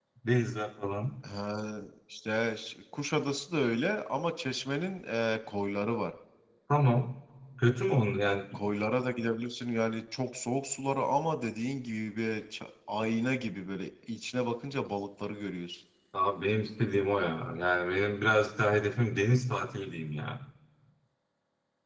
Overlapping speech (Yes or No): No